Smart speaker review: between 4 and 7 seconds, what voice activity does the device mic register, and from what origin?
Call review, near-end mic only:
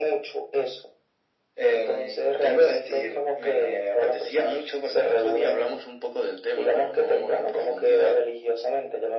echo only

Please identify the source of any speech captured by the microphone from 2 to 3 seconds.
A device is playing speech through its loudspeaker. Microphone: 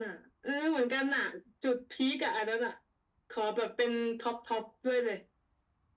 echo only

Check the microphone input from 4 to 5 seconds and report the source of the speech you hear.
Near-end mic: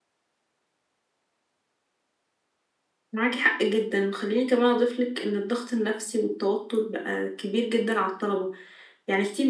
echo only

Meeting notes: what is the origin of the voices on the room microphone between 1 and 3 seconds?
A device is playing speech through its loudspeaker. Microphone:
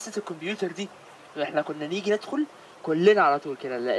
echo only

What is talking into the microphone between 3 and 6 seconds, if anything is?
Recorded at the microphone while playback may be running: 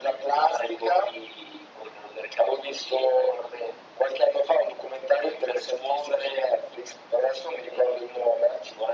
echo only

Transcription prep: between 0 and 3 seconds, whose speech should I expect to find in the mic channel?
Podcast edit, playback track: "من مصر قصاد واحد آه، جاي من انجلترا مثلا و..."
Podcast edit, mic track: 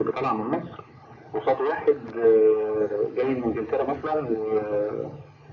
echo only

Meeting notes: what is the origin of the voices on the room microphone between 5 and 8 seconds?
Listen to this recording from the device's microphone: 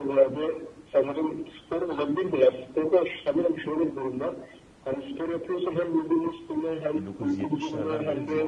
both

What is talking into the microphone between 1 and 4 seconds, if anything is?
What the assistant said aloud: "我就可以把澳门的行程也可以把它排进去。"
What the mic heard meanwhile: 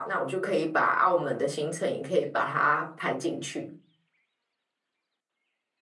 echo only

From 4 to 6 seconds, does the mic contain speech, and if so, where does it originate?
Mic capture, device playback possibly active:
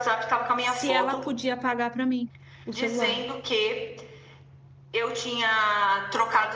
echo only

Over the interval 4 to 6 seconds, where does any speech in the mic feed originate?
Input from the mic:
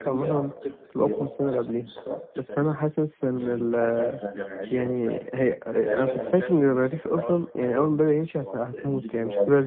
both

